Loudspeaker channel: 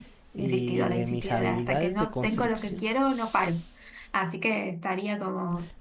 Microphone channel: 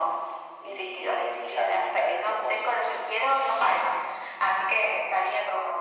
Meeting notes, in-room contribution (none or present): none